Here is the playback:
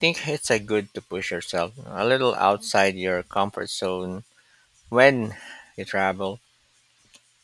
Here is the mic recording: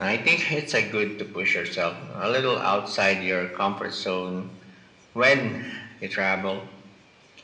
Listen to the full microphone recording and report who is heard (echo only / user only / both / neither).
echo only